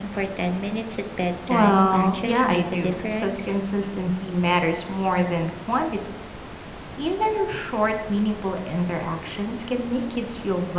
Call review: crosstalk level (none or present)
present